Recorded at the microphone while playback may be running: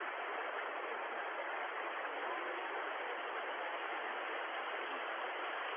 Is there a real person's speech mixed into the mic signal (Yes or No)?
No